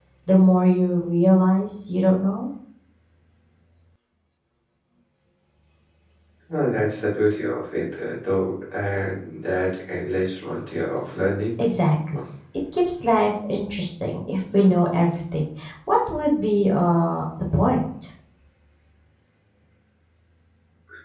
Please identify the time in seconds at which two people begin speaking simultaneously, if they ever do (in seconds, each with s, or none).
none